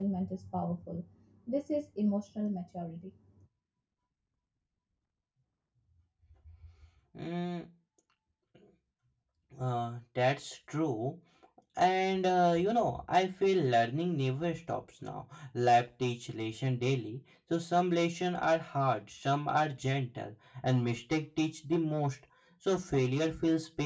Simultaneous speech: No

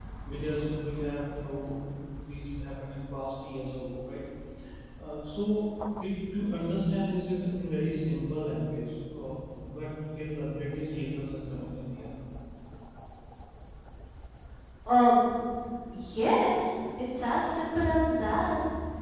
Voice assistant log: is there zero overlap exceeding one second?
Yes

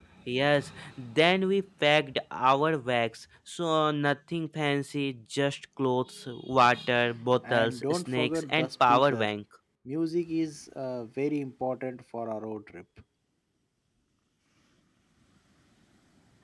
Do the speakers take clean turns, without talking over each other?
No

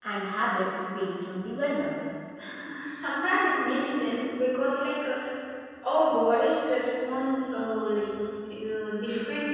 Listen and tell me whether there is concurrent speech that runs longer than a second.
No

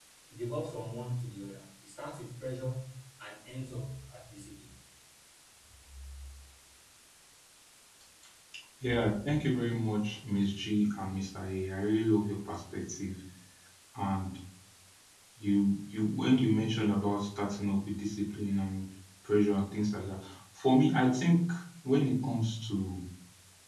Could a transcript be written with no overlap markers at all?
Yes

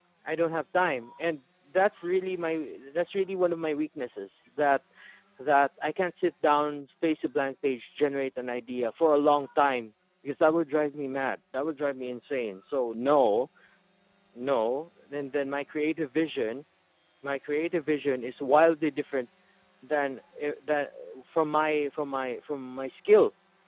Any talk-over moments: No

